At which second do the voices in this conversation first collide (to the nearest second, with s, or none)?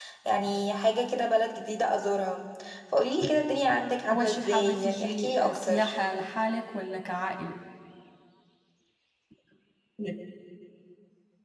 4 s